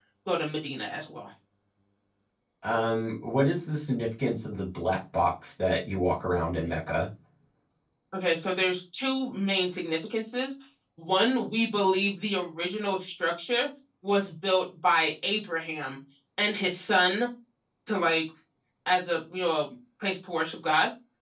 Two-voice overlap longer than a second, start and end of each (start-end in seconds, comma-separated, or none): none